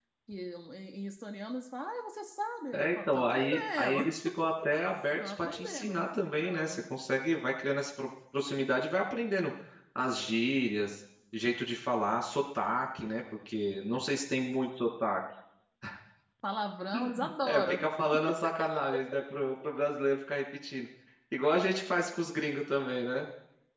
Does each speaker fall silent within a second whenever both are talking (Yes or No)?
No